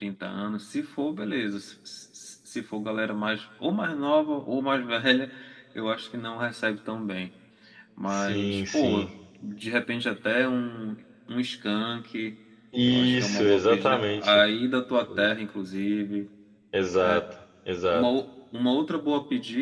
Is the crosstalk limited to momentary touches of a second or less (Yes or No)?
No